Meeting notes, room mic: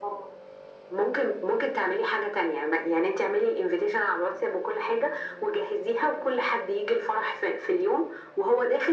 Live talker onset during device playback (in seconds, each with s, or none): none